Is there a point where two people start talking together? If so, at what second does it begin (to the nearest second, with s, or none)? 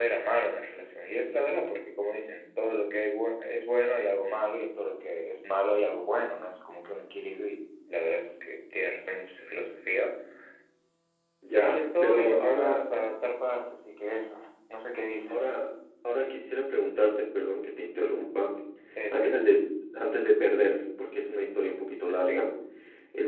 11 s